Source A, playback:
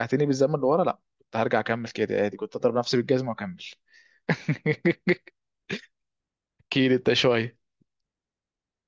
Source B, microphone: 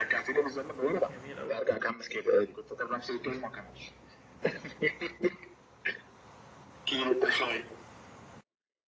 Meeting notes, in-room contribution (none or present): present